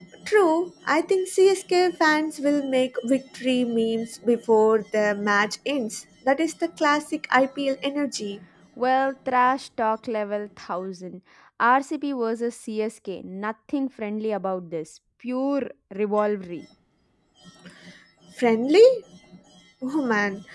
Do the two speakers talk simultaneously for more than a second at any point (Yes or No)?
No